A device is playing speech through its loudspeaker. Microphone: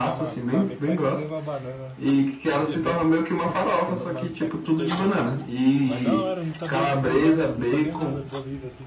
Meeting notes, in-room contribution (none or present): present